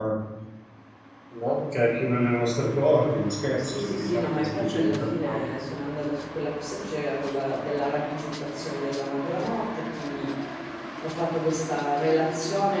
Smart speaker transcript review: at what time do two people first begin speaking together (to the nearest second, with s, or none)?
4 s